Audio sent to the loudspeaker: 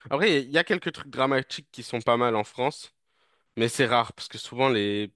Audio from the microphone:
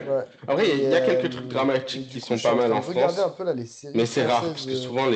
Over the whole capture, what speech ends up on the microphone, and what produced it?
both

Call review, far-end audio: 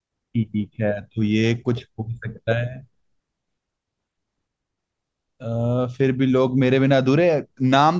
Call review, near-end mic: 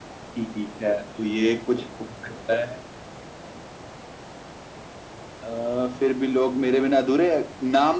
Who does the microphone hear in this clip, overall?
echo only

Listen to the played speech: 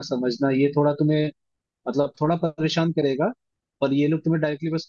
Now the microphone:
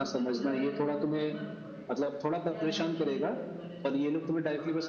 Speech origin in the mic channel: both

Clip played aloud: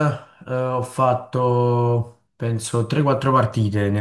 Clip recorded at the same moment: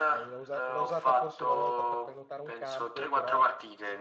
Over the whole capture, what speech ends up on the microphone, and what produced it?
both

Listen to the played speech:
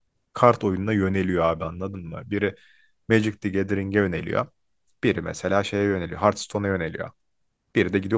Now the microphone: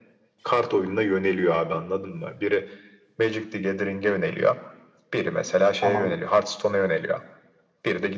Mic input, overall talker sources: both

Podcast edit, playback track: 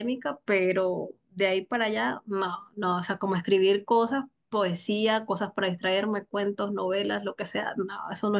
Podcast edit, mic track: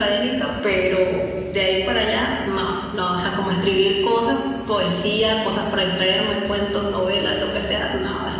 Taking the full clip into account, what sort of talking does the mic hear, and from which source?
echo only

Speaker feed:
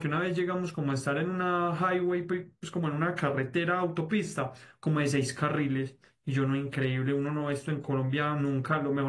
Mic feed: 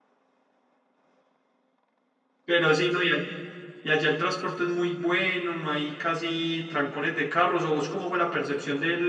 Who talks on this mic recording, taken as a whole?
user only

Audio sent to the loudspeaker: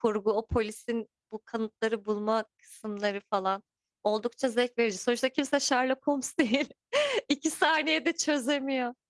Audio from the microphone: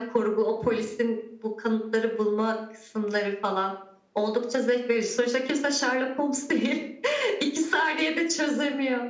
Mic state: echo only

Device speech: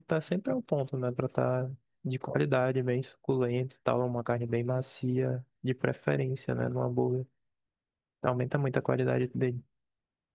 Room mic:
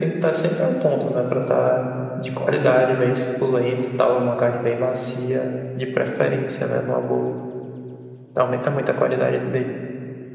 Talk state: echo only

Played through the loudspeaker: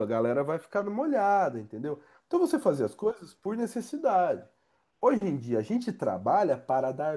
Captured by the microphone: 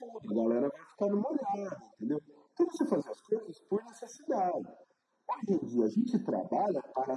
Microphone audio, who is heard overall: echo only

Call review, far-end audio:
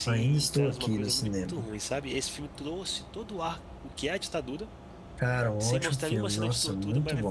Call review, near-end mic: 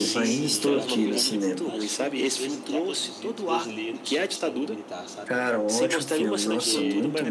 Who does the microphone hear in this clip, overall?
both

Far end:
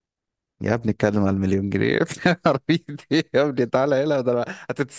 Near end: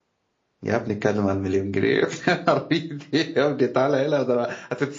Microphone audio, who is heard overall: echo only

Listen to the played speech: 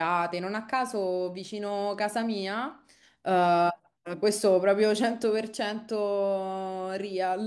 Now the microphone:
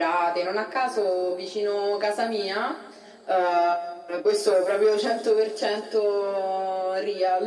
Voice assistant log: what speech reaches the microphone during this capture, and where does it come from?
echo only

